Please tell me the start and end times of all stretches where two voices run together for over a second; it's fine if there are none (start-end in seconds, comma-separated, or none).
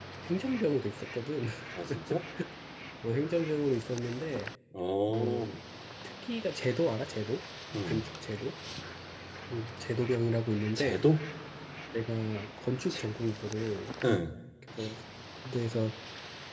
none